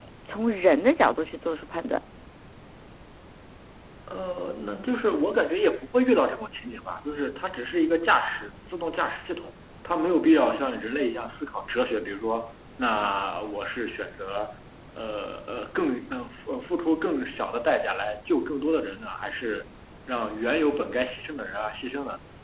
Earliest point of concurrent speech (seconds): none

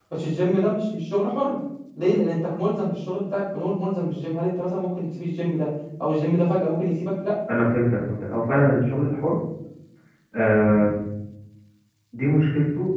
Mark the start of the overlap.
none

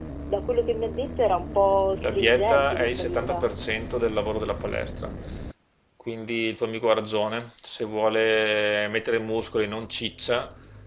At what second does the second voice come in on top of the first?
2.0 s

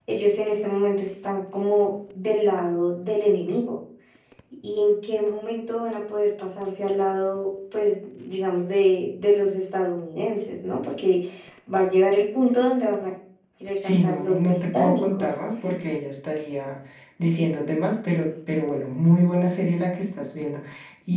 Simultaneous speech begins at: 13.8 s

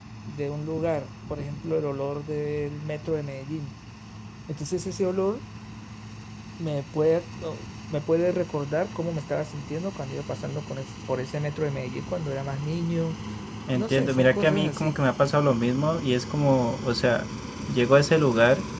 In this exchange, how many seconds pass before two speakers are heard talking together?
13.7 s

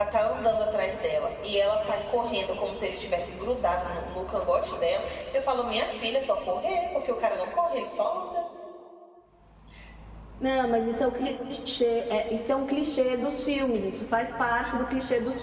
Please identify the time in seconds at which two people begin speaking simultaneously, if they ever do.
none

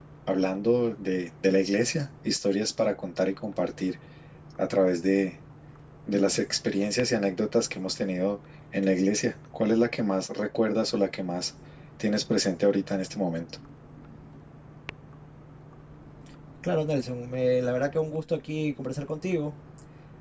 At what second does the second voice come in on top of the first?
none

